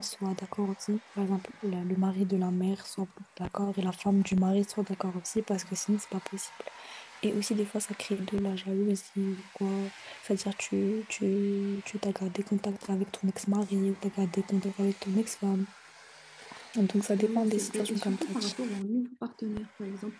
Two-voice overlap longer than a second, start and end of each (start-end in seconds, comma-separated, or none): 17.2-18.5